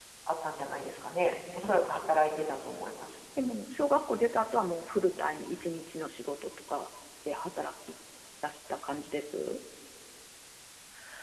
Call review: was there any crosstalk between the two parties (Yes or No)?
No